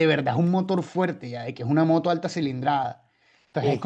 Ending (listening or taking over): listening